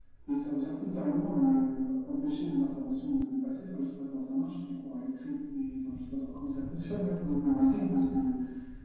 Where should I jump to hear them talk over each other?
none

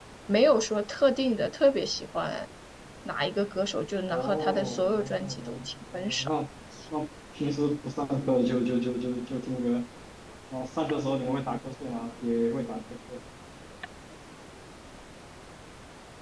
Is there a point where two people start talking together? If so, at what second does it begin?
4 s

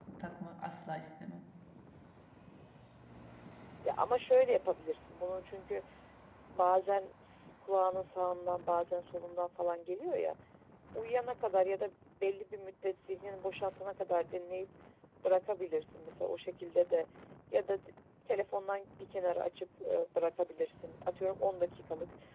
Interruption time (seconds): none

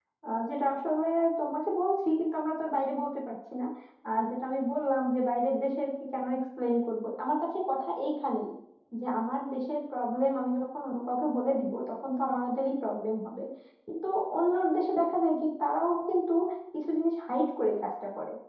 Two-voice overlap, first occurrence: none

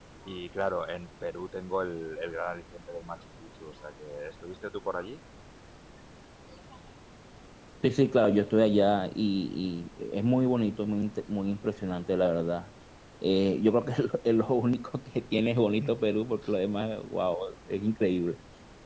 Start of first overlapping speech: none

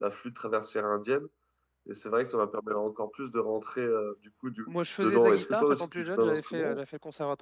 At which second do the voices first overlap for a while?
5 s

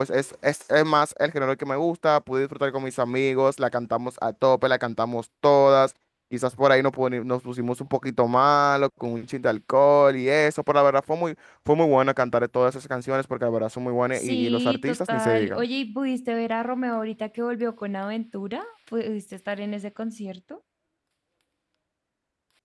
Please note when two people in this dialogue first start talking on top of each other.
14 s

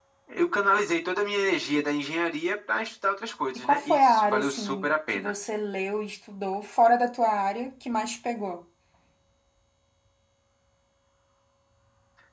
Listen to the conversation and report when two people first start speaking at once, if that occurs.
4 s

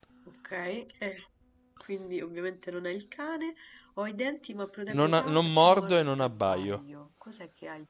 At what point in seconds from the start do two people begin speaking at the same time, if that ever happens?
5 s

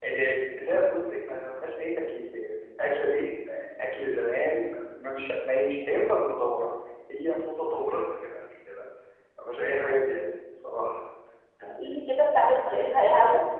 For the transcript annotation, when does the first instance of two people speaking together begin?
none

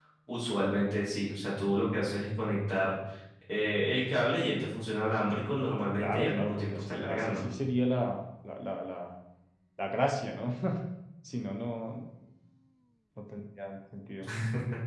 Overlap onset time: 6 s

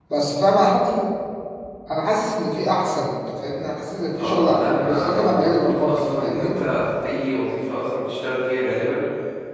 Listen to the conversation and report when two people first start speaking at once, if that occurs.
4 s

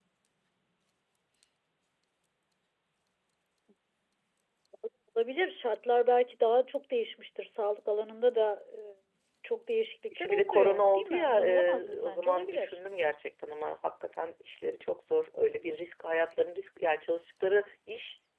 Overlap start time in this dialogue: 10 s

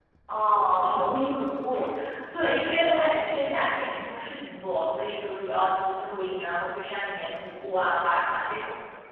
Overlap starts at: none

